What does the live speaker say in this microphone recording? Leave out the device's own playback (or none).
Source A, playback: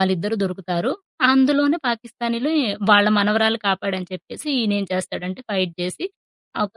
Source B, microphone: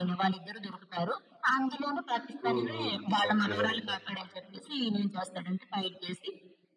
హ్మ్. హ్మ్. అవును. నిజం జెప్పారు.